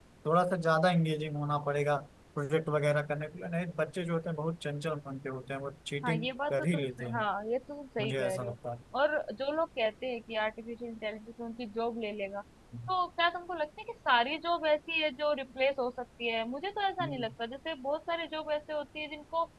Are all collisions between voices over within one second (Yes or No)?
No